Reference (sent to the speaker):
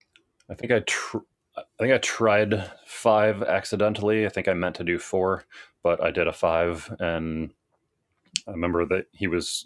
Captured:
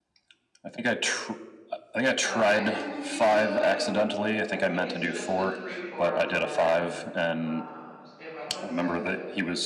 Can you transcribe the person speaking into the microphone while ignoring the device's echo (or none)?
Uh, I believe so. I, let me check. I think it's just the freeform 10. Um, stand by one second.